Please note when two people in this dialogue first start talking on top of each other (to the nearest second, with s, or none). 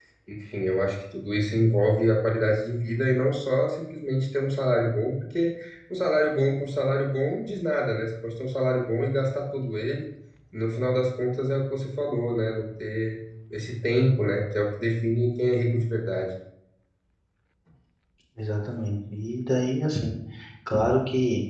none